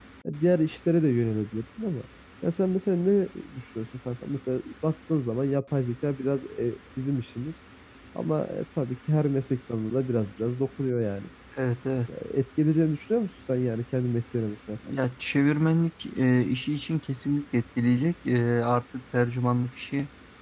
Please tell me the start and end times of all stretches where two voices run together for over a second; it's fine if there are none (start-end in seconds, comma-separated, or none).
none